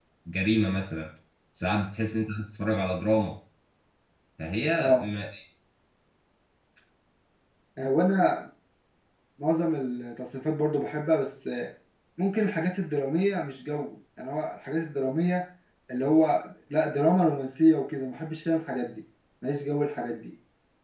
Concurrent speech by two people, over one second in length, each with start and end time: none

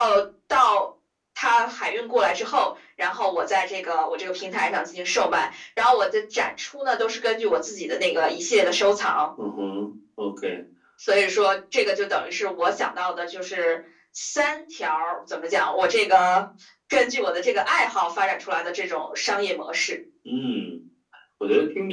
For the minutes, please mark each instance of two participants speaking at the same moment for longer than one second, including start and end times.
none

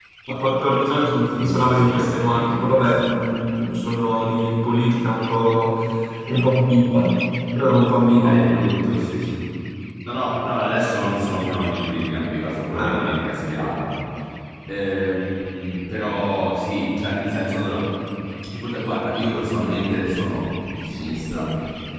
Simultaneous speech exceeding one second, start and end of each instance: 1.3-3.2

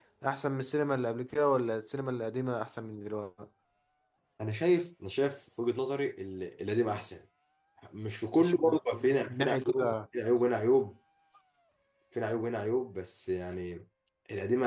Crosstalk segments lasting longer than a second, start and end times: 8.4-9.9

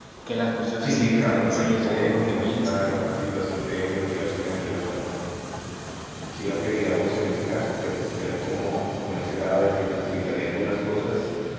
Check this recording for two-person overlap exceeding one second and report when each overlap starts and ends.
0.8-2.9

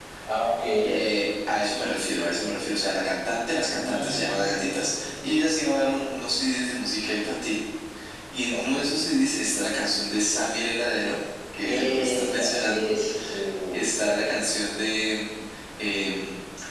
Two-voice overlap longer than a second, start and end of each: 3.8-5.3, 11.6-12.9

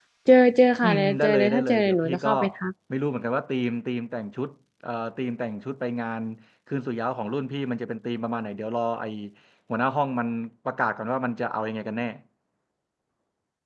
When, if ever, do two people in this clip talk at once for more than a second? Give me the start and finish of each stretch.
0.8-2.3

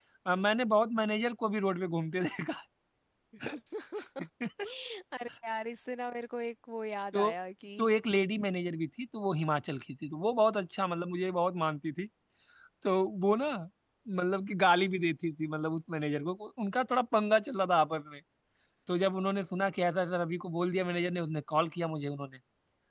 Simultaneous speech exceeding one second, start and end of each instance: none

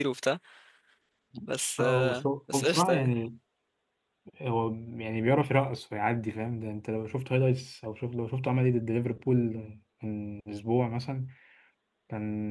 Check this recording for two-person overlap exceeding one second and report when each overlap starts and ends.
1.8-3.1

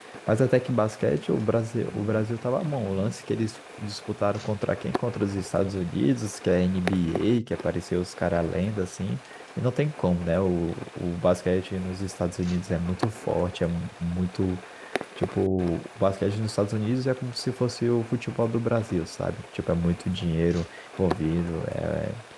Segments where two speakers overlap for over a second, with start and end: none

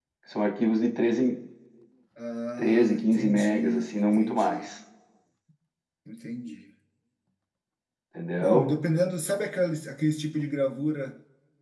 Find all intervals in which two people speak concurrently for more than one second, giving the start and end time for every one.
2.6-4.6

